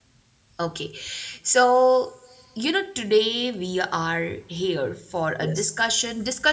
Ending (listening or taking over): listening